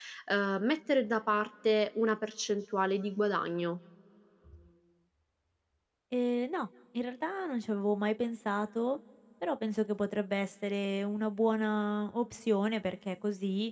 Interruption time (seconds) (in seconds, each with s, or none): none